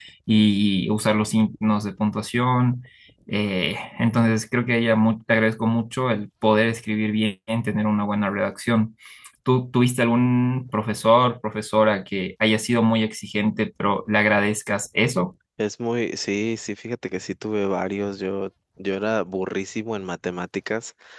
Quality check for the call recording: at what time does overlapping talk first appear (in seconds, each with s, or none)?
none